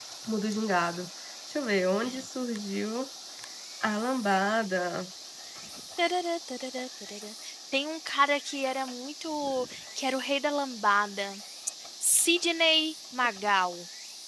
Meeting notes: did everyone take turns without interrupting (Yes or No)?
Yes